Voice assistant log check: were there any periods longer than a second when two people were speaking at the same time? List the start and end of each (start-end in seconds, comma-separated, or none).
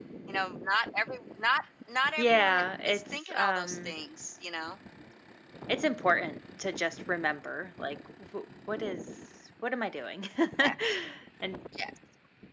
2.2-4.0